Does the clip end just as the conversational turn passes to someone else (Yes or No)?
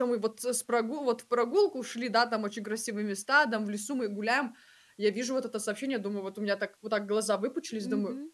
Yes